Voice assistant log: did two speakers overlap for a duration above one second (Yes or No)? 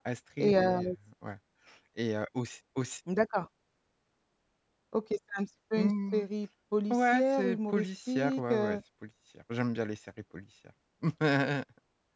Yes